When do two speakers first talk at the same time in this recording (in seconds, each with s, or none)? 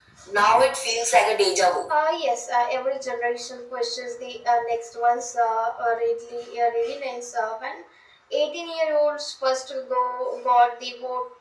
none